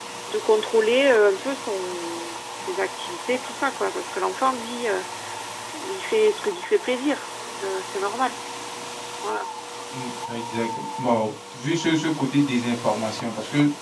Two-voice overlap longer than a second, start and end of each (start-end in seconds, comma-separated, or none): none